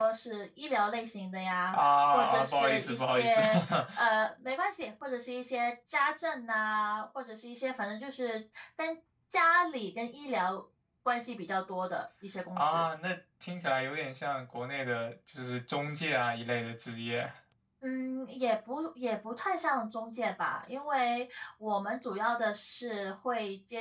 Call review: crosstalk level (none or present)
present